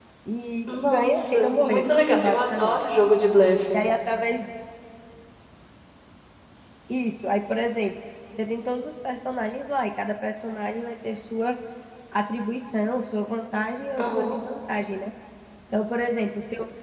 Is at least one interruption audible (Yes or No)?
Yes